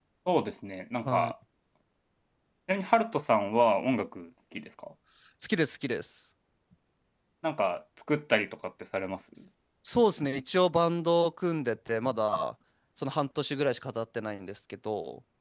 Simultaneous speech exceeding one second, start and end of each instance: none

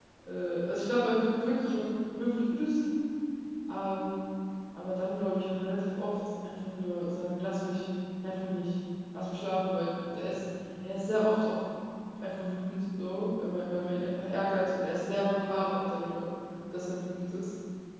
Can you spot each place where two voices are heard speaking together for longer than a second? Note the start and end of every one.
none

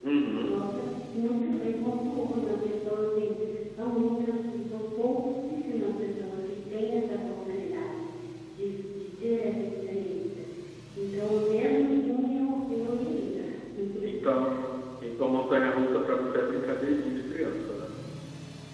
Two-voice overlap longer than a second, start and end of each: none

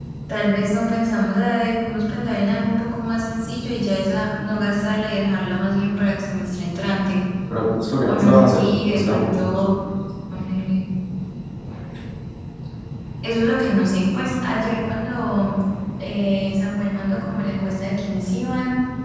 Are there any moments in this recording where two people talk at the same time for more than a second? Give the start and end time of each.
8.1-9.6

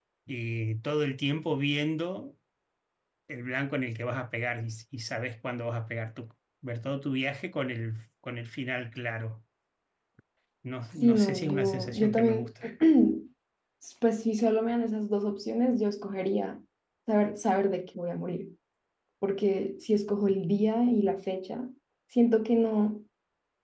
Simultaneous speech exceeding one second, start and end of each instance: 11.0-12.5

